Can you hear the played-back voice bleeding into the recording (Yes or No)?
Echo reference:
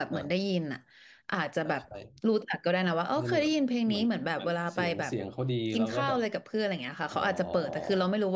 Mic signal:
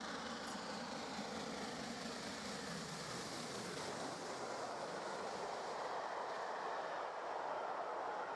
No